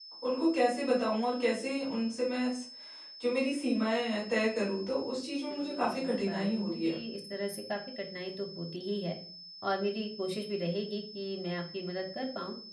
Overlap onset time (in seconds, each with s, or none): 5.5 s